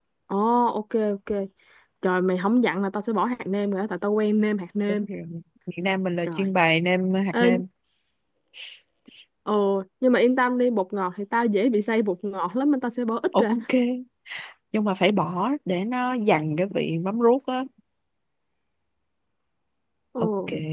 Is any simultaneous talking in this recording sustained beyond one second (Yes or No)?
No